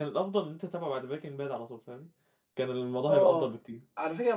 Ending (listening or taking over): taking over